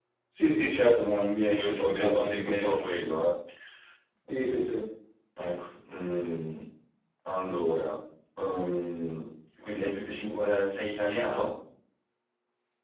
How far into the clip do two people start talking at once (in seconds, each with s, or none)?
1.5 s